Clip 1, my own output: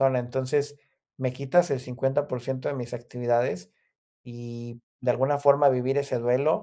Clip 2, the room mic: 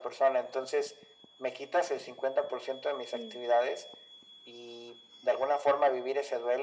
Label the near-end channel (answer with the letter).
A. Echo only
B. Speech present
B